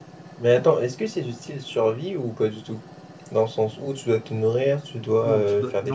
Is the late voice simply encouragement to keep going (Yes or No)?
No